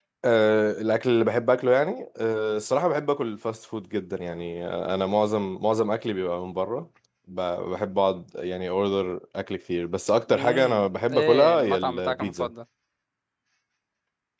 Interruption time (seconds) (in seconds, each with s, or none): 10.3 s